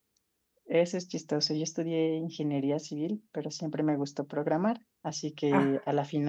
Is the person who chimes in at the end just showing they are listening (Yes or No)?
Yes